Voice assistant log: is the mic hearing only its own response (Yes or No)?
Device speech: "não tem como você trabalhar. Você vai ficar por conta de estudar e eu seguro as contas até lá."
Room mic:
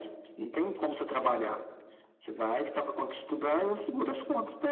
Yes